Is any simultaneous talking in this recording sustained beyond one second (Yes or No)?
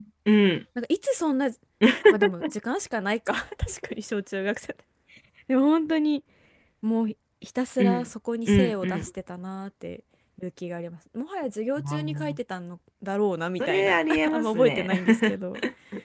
Yes